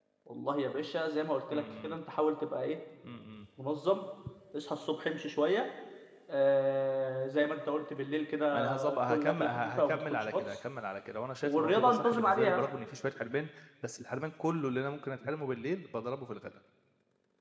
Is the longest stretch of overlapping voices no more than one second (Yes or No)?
No